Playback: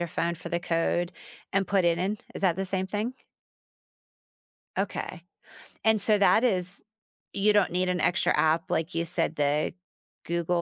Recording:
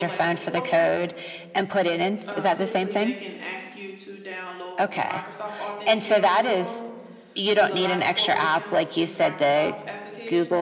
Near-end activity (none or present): present